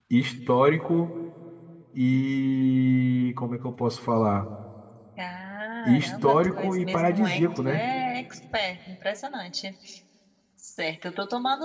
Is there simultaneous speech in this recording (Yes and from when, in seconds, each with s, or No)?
Yes, from 5.8 s